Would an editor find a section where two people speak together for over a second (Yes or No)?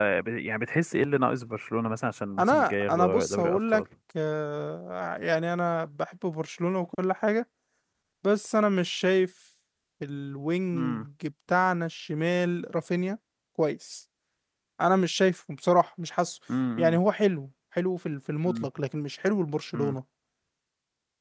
Yes